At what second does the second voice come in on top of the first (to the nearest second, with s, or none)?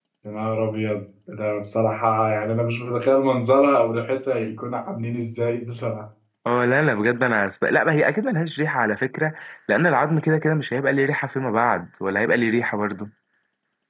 none